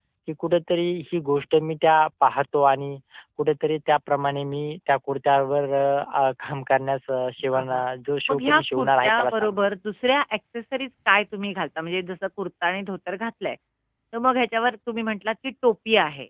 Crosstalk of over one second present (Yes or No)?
Yes